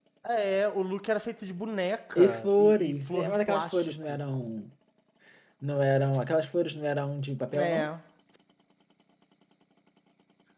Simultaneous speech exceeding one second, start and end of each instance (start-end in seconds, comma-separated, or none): 2.1-4.2